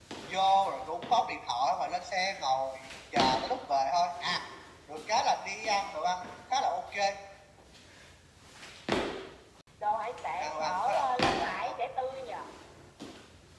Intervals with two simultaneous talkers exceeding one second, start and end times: 10.4-11.8

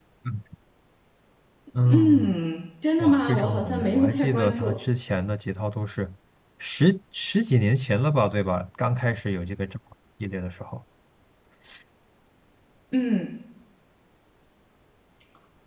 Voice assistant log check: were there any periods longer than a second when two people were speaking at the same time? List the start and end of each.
3.0-4.8

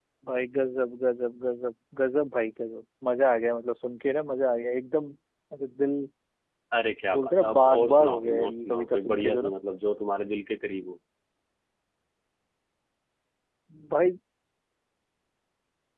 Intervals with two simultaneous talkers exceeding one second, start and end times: 7.1-9.5

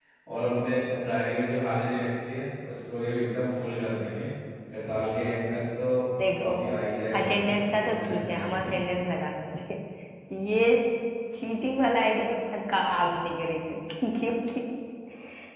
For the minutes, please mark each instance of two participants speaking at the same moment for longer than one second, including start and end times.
7.2-8.7

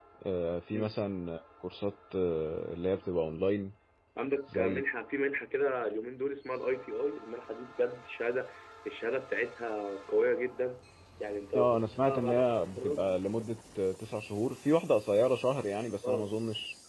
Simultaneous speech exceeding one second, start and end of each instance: 11.6-13.1

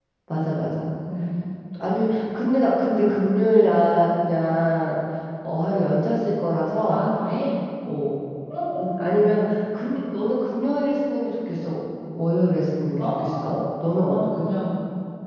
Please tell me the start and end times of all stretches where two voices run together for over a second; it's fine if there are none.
13.0-14.3

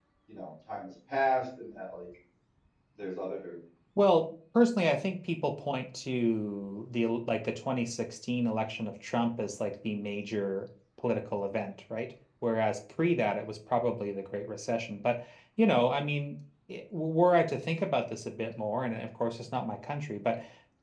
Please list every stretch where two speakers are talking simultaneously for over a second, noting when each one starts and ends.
none

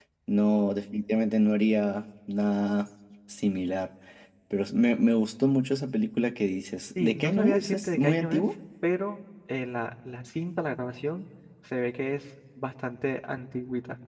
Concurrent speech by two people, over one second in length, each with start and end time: 7.0-8.4

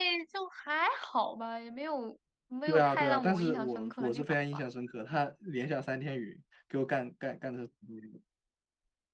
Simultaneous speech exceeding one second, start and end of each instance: 2.7-4.6

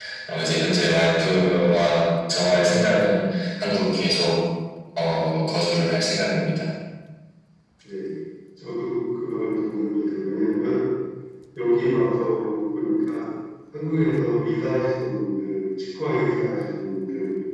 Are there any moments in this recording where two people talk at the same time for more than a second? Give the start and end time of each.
none

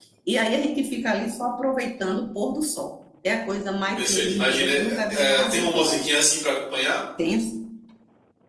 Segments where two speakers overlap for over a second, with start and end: 4.0-6.1

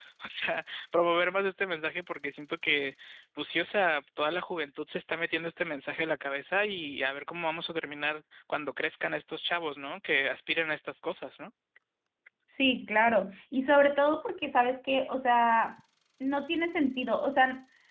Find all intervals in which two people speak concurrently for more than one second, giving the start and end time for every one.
none

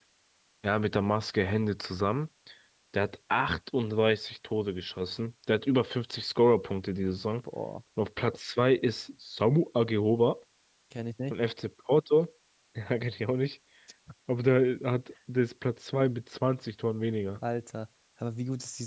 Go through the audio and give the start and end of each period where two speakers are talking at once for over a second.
none

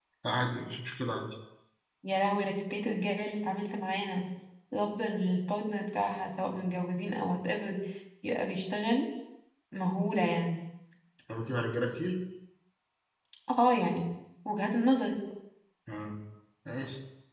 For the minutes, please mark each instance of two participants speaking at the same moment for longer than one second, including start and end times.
none

